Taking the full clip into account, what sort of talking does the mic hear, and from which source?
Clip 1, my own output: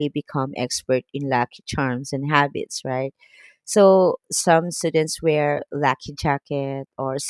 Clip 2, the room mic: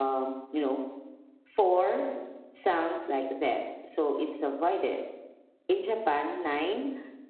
user only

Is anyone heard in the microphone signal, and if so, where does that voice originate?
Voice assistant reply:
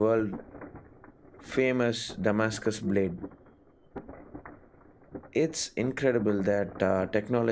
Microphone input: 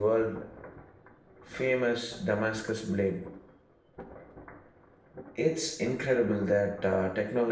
echo only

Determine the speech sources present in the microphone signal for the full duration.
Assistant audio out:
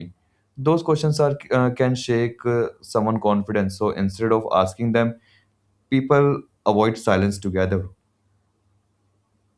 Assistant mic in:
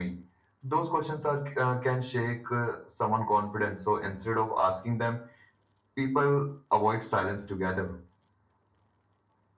echo only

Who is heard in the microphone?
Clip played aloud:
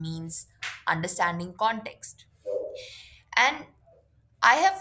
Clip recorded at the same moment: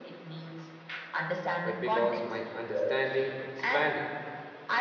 both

